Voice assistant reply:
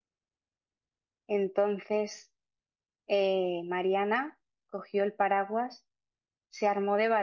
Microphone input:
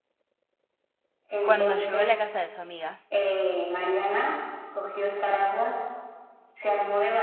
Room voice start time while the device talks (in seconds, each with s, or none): 1.4 s